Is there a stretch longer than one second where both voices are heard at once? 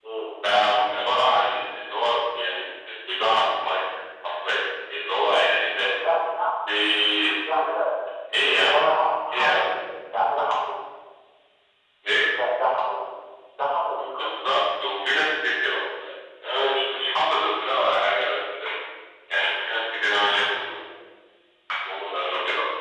No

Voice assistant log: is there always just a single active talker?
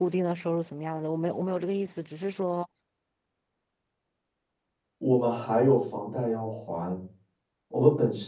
Yes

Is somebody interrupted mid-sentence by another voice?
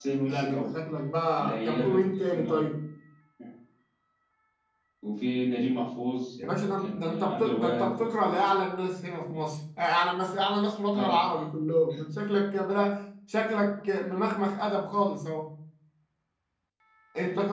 Yes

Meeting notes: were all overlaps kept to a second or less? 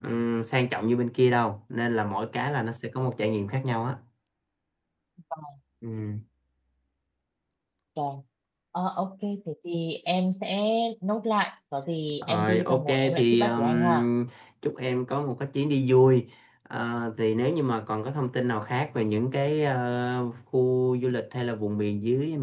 No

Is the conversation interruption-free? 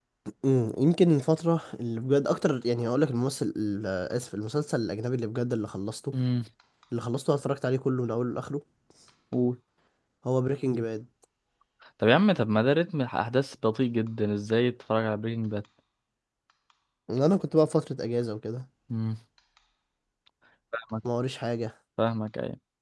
Yes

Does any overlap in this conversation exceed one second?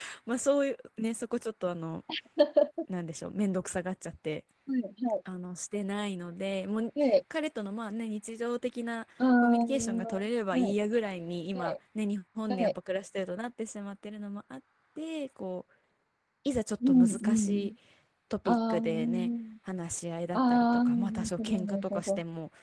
Yes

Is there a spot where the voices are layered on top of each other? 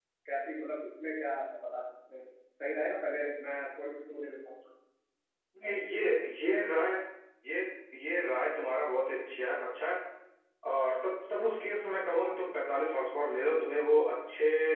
No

